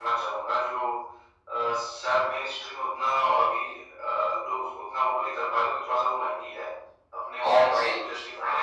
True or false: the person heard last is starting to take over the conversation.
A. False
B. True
A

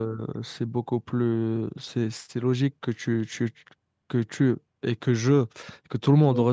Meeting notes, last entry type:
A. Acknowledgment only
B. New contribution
A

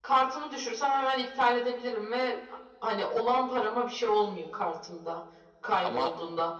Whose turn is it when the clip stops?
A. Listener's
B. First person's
B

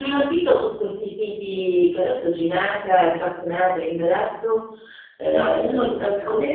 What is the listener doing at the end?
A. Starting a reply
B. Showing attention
A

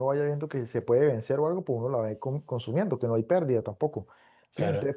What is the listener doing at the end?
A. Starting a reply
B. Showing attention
B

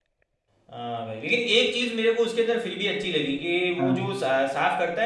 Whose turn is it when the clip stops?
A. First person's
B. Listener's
A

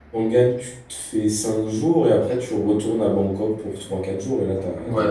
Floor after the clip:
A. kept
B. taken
B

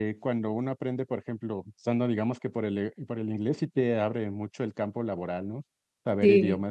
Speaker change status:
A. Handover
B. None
A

